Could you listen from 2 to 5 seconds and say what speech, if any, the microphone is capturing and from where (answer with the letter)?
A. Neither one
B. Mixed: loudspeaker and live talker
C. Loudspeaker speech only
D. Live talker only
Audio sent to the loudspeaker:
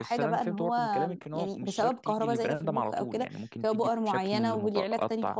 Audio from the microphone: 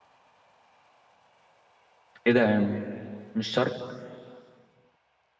D